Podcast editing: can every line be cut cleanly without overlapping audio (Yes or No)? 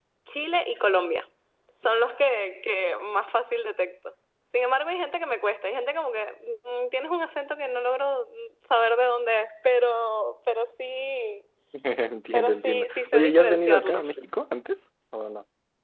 No